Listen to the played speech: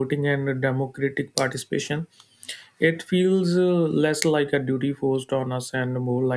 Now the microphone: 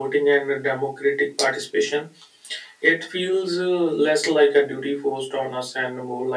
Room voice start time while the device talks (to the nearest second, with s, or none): none